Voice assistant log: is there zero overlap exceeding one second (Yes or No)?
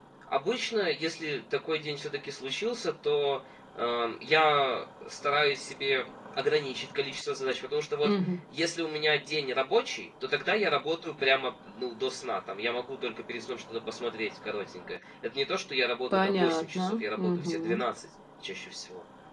No